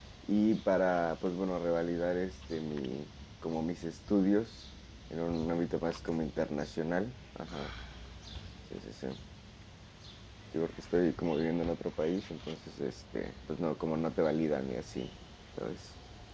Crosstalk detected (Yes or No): No